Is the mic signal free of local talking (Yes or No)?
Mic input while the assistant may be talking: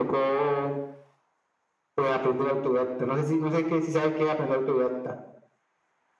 Yes